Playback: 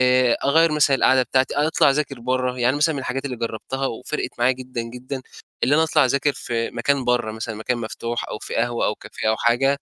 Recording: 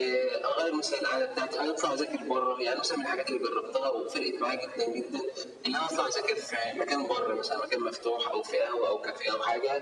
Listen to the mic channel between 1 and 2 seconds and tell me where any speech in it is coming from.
echo only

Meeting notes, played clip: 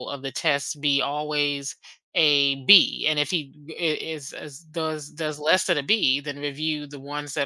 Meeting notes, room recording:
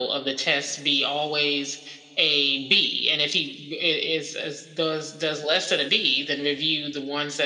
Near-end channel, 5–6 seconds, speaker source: echo only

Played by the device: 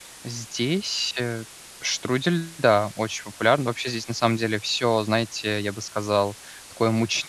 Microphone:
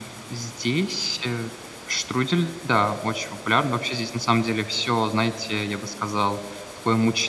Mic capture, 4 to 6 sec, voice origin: echo only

